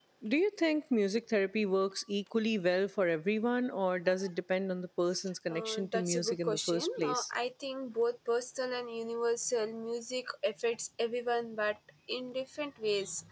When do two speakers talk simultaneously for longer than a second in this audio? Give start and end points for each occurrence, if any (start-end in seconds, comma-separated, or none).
5.5-7.2